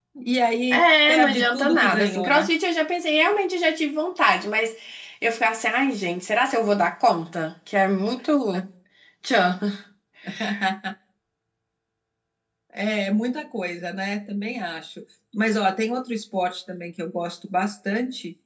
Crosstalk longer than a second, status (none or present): present